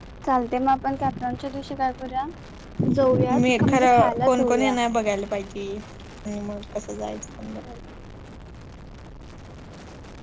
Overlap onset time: 3.3 s

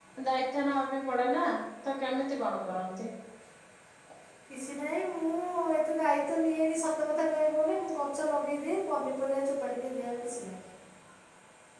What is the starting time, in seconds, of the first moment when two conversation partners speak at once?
none

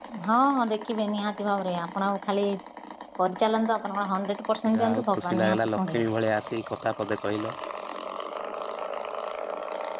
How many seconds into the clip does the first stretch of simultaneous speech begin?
4.6 s

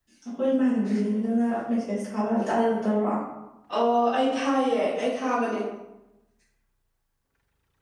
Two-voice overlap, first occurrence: none

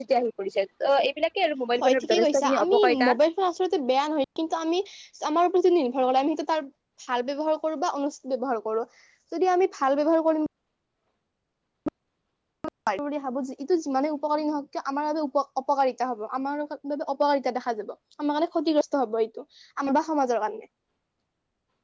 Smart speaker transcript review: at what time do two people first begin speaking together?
1.8 s

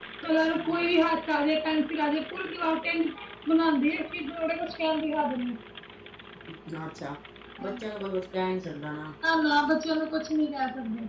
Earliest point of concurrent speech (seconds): none

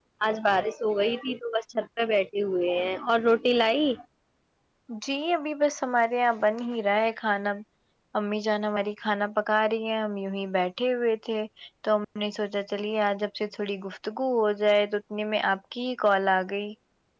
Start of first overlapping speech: none

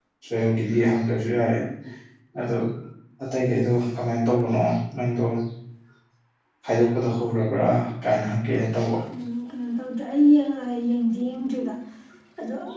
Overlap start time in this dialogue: none

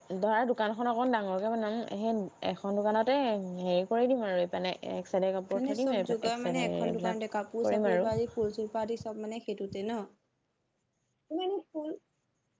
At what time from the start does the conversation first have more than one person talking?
5.6 s

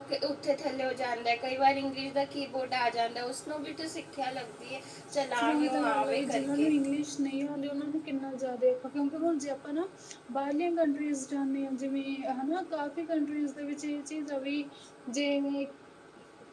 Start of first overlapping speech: 5.4 s

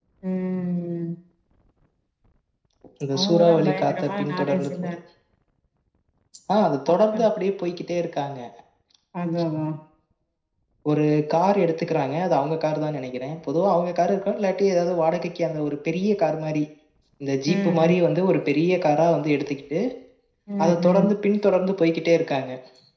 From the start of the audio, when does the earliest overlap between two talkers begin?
3.2 s

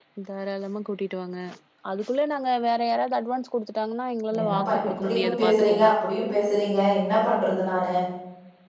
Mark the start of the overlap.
4.3 s

